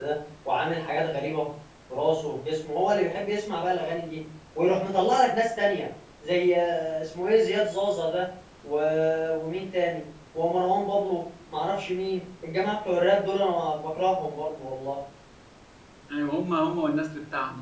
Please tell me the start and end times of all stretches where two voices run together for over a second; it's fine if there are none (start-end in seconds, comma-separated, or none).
none